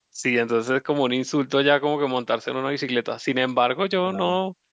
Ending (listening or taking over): listening